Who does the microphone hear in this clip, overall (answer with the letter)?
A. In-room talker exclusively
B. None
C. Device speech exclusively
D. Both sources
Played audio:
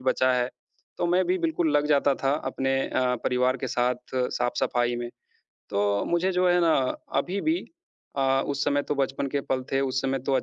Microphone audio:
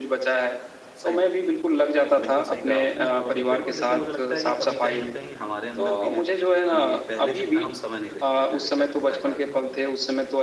D